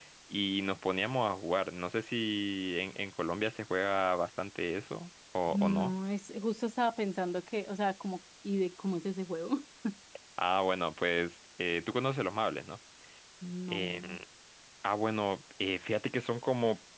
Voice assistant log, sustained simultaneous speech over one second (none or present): none